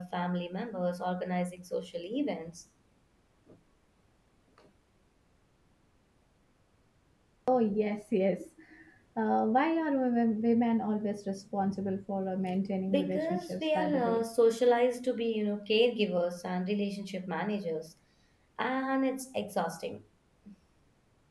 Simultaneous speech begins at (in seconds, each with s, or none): 12.9 s